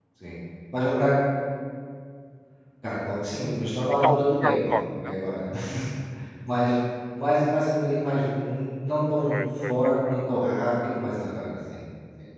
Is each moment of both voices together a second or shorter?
No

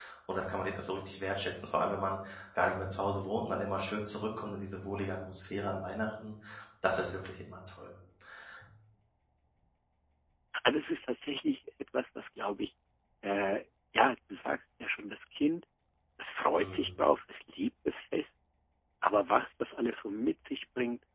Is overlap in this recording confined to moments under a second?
Yes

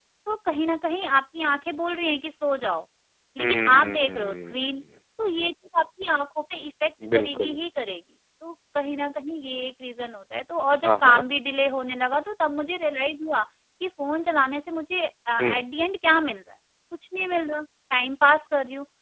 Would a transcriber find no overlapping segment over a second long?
No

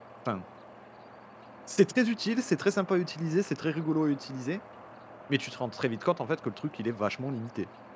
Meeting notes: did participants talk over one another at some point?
No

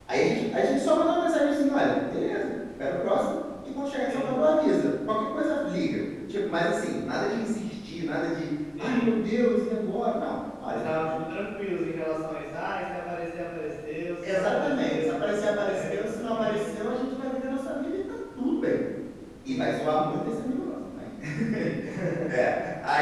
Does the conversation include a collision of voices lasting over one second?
Yes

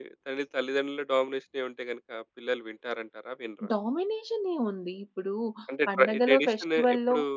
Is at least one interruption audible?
Yes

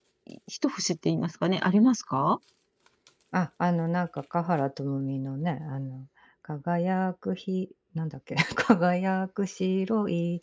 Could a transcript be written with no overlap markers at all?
Yes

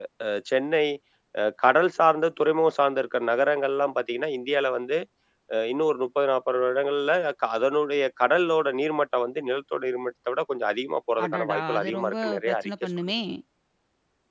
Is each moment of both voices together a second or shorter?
No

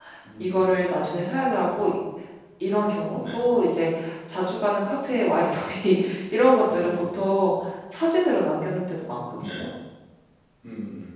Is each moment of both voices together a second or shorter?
Yes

